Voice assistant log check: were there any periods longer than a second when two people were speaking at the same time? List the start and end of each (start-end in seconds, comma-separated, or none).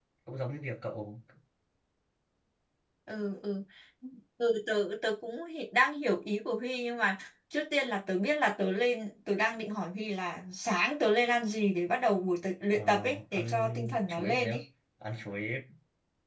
12.7-14.6